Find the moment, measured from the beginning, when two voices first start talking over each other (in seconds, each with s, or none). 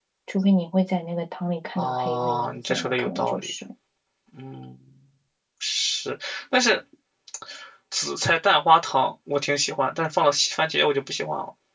1.8 s